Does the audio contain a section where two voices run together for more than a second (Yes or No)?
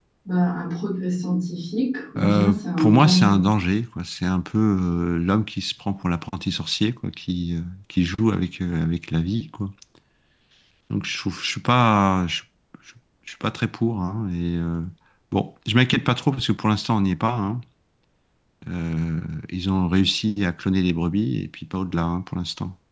Yes